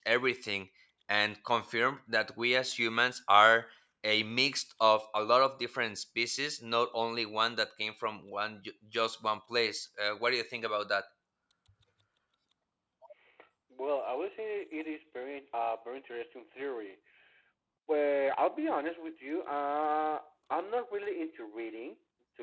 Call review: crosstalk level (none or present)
none